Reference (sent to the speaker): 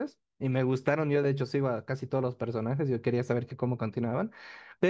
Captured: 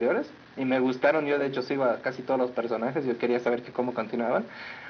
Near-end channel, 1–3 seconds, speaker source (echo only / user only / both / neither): echo only